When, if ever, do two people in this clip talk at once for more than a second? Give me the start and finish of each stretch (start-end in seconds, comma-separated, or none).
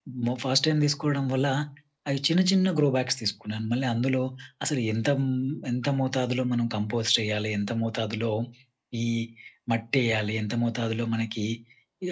none